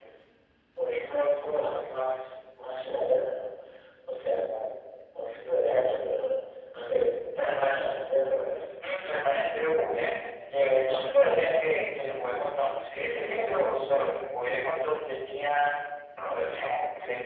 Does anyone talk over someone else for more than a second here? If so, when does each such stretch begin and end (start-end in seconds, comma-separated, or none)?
none